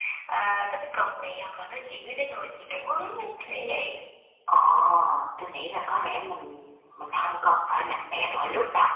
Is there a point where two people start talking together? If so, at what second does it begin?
none

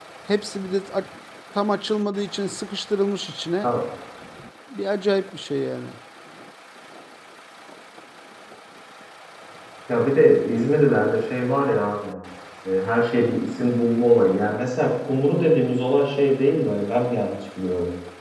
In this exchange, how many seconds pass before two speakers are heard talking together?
none

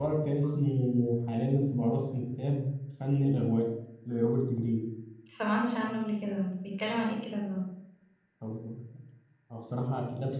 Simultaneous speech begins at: none

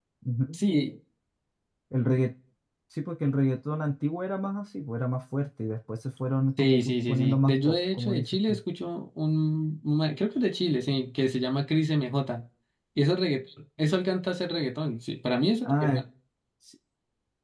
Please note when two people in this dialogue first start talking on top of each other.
6.6 s

